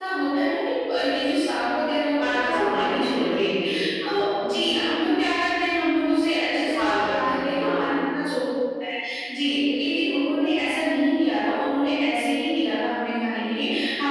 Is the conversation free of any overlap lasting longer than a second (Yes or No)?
No